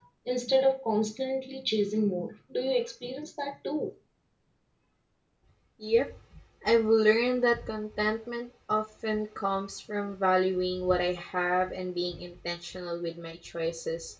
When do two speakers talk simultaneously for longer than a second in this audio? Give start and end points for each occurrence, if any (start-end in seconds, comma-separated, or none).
none